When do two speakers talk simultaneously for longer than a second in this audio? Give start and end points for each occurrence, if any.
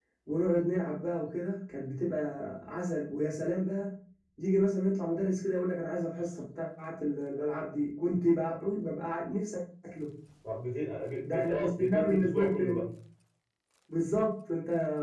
11.2-12.8

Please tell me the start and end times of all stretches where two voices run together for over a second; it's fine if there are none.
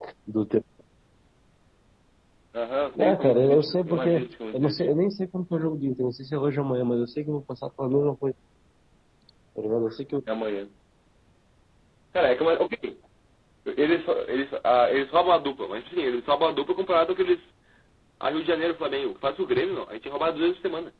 3.0-4.8

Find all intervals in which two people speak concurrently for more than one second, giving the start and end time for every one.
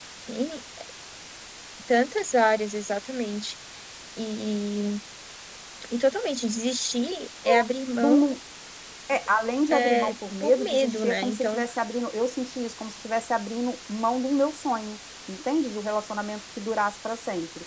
9.7-11.6

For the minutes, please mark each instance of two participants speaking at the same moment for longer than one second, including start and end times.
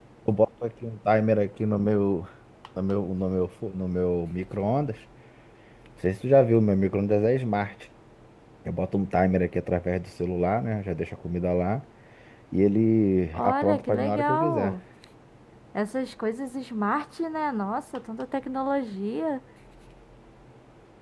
13.3-14.8

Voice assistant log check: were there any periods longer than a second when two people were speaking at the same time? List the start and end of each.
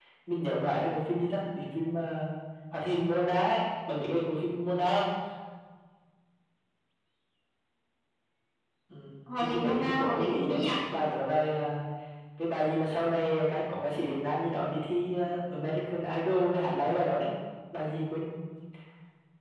9.4-10.6

